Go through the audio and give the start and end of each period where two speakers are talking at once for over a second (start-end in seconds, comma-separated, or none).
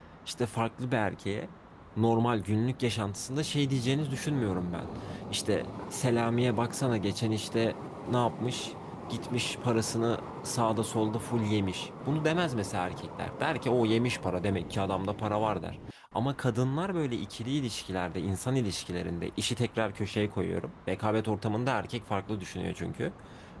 none